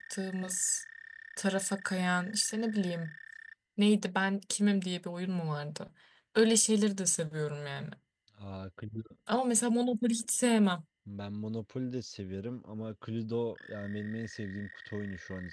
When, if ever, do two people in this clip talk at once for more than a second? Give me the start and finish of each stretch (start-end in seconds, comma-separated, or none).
none